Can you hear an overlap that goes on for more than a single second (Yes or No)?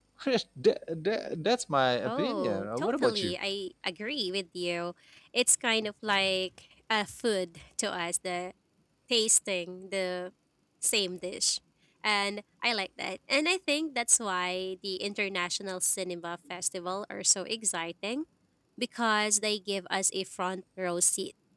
Yes